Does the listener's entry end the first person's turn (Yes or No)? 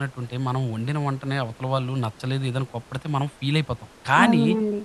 No